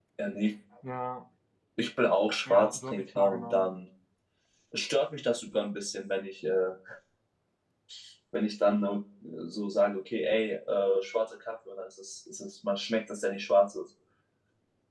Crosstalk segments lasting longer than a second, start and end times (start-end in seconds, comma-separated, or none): 2.5-3.7